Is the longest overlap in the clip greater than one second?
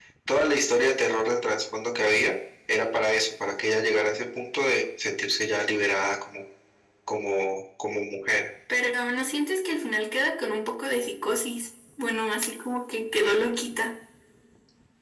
No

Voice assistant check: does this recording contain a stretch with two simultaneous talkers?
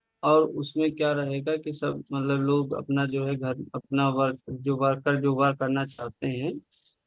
No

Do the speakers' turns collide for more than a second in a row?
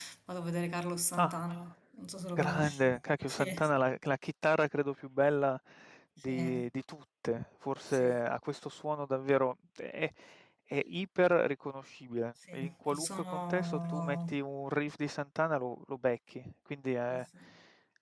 Yes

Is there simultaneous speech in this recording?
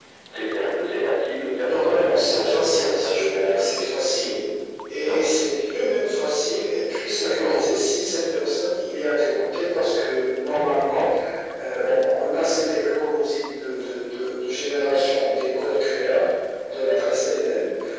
Yes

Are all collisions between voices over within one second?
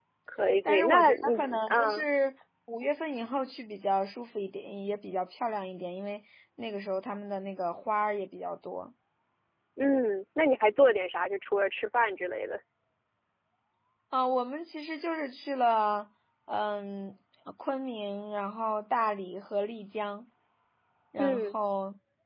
No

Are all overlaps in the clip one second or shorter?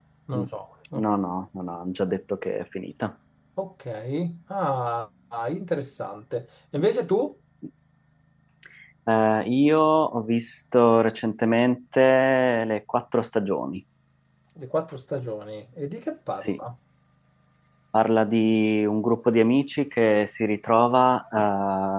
Yes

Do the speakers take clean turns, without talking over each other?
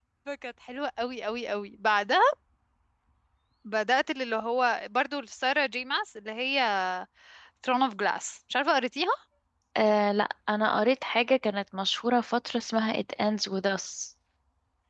Yes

